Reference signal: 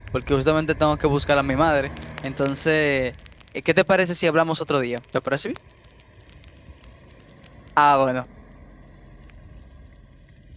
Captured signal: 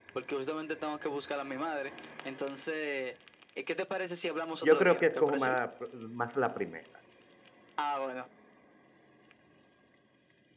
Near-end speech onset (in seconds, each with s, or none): 4.6 s